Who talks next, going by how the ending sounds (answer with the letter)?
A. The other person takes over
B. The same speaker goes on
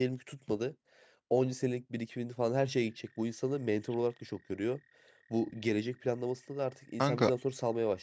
B